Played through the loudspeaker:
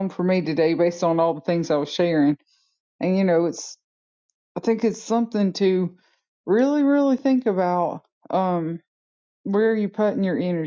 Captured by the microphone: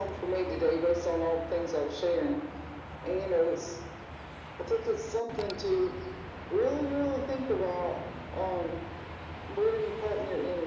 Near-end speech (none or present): none